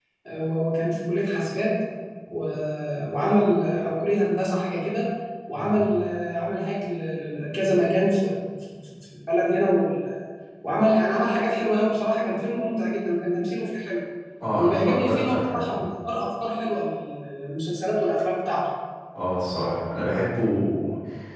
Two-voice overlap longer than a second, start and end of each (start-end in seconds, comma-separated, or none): 14.6-15.8